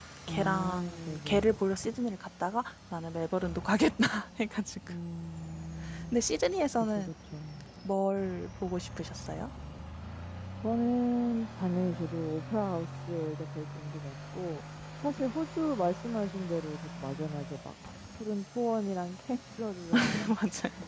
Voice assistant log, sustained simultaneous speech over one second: present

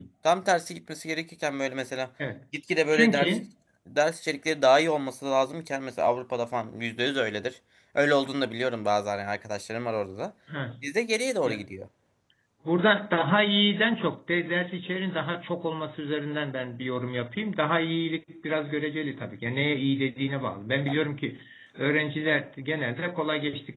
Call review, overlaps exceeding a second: none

